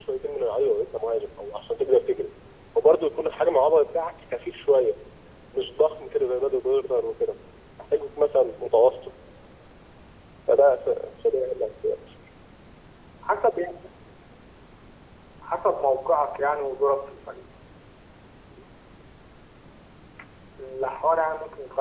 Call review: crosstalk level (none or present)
none